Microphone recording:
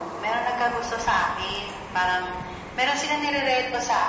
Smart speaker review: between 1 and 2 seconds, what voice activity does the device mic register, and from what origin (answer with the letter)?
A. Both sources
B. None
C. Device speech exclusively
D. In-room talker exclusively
C